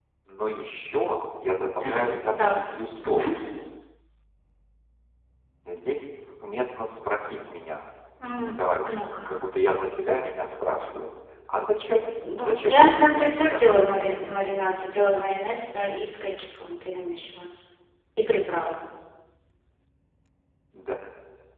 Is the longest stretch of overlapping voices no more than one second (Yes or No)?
No